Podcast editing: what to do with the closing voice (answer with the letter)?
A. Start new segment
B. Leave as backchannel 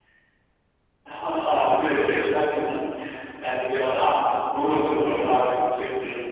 B